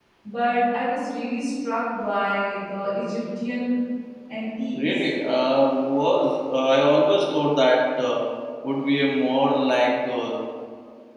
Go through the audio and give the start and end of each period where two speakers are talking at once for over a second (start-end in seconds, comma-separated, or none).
none